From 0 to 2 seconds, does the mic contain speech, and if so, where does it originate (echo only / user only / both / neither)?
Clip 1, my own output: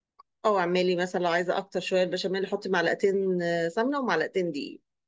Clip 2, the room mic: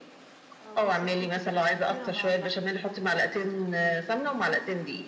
both